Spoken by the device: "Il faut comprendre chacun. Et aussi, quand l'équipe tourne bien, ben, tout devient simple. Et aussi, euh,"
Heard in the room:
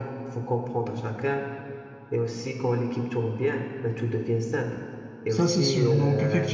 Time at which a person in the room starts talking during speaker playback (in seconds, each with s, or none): 5.3 s